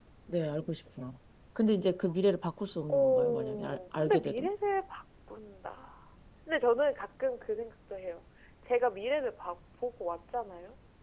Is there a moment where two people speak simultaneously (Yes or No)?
Yes